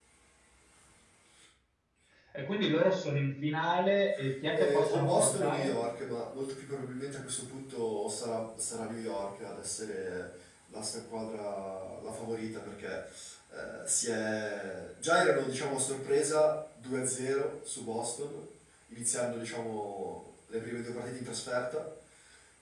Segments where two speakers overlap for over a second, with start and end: 4.6-5.8

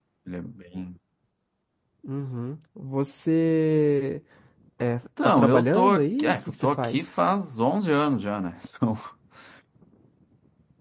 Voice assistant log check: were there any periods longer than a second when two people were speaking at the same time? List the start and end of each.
5.4-7.1

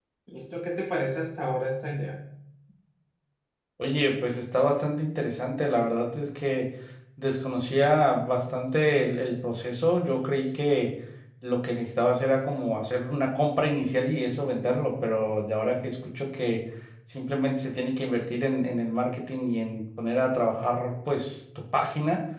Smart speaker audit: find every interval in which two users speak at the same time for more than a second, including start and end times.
none

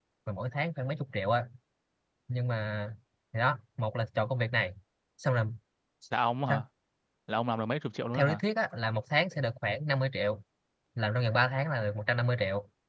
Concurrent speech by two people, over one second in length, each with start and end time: none

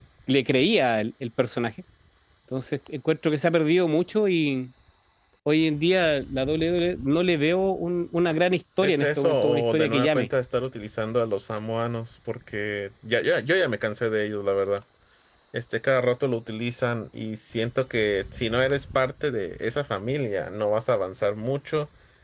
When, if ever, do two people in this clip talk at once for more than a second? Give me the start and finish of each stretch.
8.8-10.3

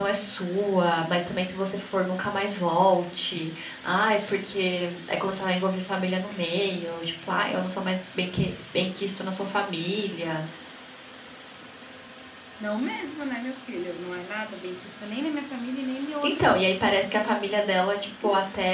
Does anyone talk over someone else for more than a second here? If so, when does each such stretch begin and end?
none

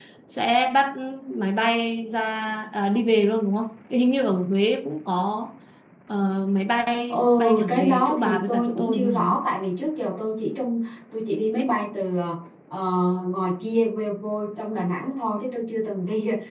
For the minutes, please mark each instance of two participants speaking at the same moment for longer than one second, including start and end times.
7.1-9.4

